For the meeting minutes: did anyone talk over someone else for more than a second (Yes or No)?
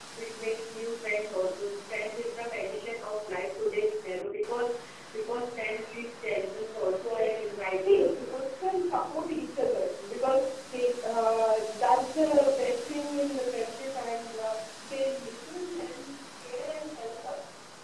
Yes